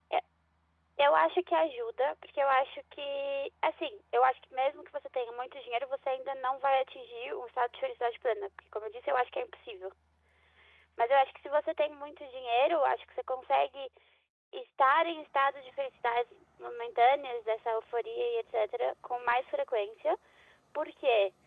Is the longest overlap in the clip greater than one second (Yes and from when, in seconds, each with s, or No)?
No